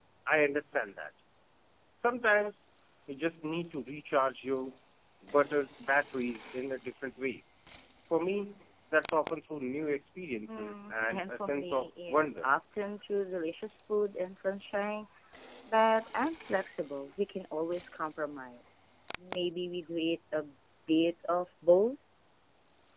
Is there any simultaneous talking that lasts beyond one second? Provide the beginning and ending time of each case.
10.5-12.5

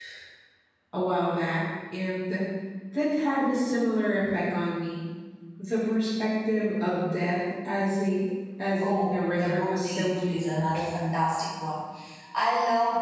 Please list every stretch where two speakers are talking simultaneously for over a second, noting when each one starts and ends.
8.8-10.8

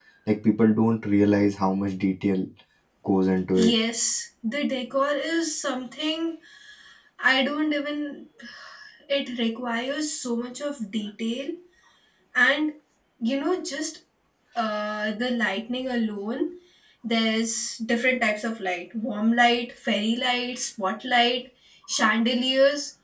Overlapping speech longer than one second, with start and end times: none

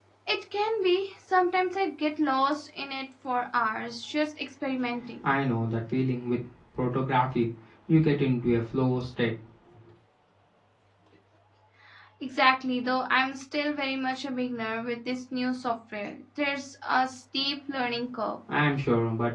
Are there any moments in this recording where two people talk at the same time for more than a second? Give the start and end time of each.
none

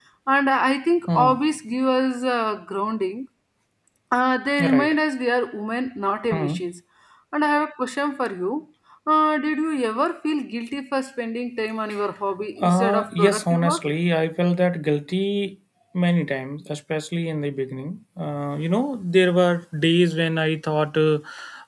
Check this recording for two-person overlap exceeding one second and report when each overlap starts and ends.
12.6-13.8

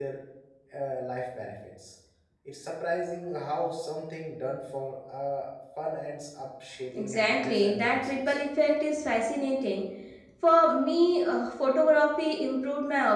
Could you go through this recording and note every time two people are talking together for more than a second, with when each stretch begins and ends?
6.9-8.4

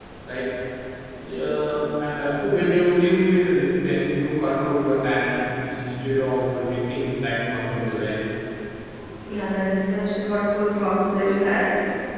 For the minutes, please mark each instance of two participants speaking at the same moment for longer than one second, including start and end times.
none

